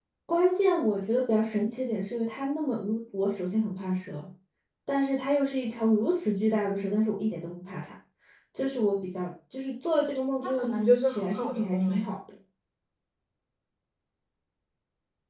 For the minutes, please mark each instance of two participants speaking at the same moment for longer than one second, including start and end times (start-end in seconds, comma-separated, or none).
10.4-12.1